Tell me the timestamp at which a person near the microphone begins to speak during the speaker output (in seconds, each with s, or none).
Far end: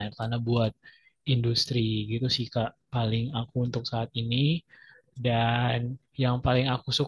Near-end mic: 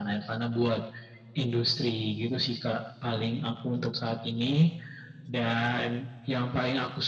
none